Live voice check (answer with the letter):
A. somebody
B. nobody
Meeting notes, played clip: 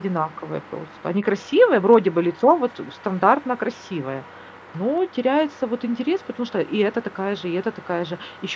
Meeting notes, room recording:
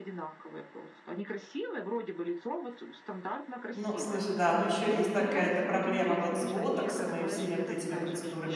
A